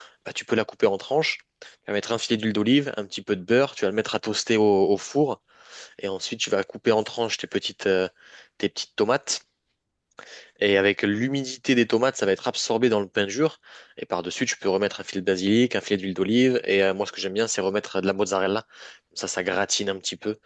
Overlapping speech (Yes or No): No